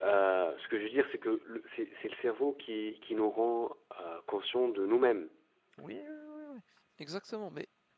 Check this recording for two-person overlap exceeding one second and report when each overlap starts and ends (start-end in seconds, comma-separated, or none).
none